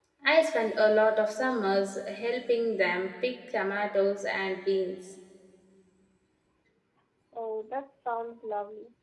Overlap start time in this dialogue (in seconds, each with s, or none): none